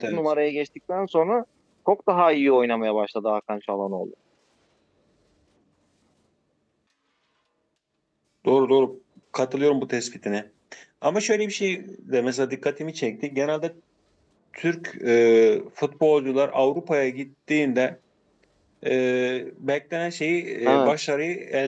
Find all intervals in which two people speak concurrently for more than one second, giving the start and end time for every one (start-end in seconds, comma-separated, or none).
none